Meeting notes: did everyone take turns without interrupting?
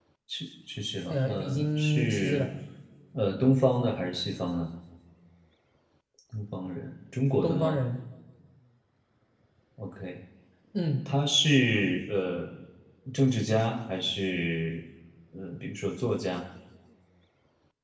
No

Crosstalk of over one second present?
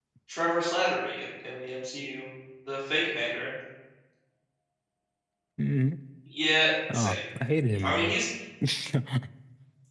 No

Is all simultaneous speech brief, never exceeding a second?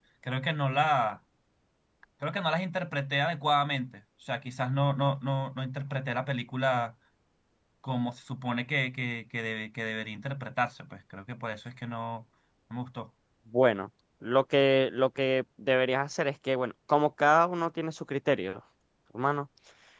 Yes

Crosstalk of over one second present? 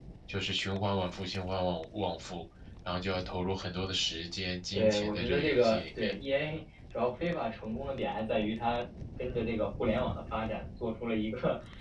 Yes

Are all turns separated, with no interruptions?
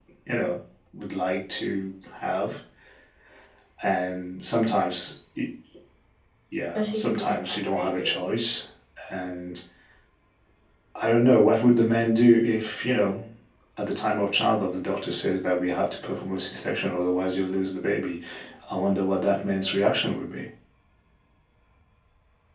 No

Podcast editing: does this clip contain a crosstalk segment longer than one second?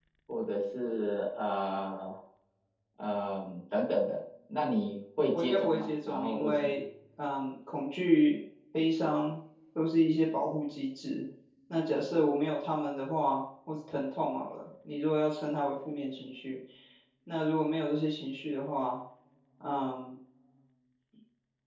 Yes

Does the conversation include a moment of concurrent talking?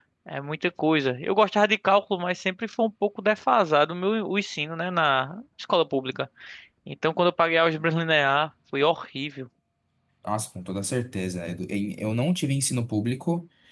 No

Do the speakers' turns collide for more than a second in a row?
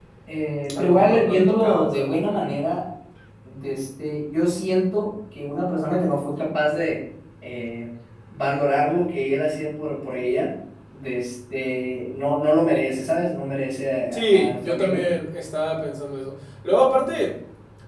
Yes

